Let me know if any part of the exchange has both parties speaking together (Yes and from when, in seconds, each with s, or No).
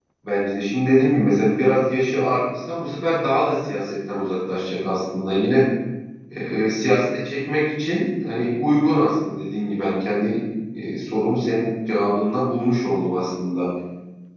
No